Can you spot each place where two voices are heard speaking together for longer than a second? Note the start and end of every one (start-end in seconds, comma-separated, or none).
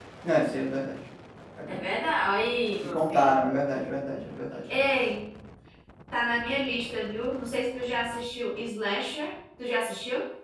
none